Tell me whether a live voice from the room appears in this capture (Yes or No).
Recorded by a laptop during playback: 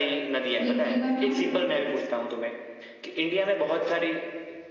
Yes